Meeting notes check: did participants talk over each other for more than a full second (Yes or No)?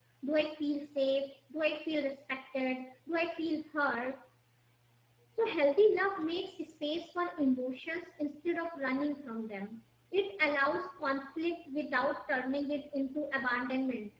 No